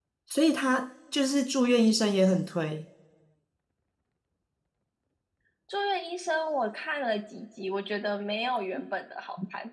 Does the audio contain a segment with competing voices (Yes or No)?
No